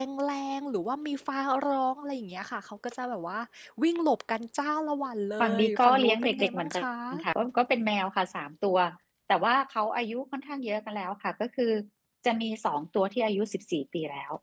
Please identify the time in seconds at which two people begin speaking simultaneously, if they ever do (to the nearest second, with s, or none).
5 s